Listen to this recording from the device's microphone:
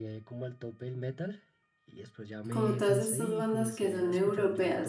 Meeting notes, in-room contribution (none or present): present